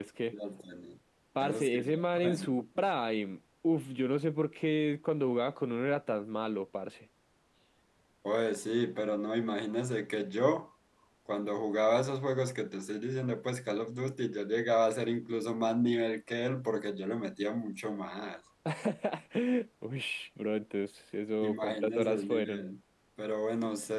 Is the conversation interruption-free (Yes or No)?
No